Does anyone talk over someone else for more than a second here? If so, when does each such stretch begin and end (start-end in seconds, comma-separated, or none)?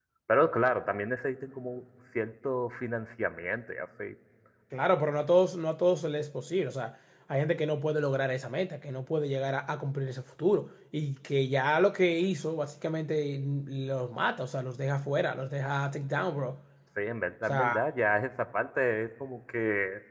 none